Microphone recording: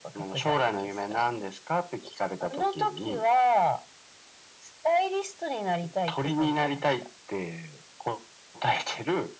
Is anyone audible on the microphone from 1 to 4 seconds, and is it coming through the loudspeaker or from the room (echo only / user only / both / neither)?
echo only